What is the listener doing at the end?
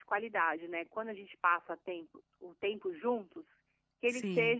listening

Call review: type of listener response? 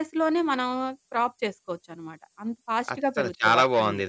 taking over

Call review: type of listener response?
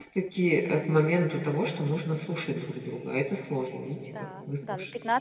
taking over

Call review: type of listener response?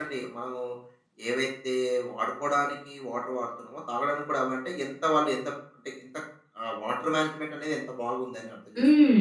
taking over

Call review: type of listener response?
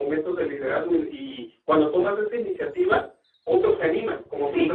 taking over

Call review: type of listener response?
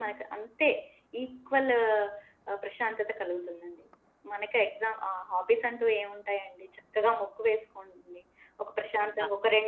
listening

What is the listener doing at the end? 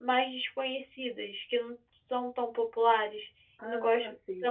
listening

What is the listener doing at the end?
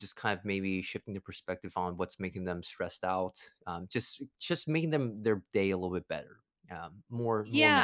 taking over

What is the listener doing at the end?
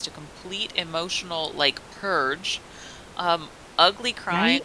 listening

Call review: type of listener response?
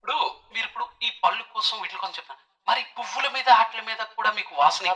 taking over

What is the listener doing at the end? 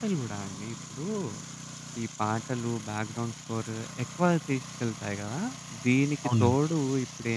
listening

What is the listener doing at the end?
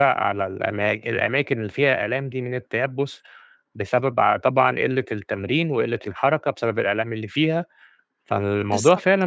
listening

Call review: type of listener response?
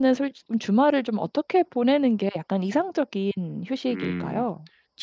taking over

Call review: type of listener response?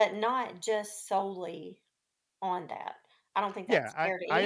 taking over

